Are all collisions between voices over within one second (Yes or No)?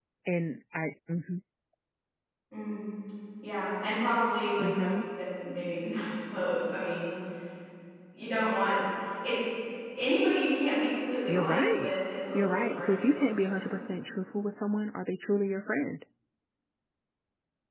No